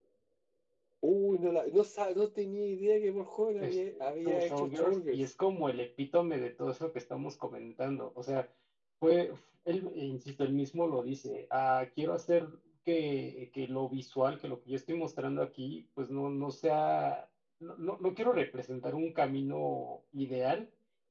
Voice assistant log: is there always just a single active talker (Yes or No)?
No